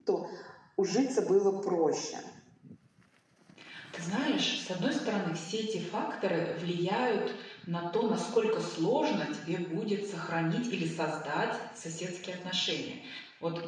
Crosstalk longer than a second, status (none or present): none